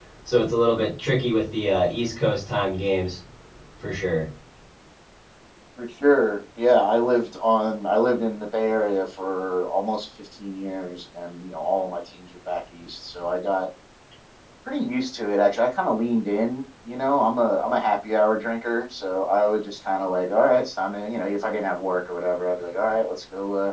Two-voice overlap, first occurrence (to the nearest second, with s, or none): none